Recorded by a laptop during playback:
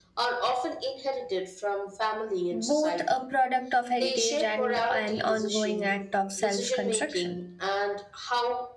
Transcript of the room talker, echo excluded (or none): both a product of heritage and an ongoing act of self construction.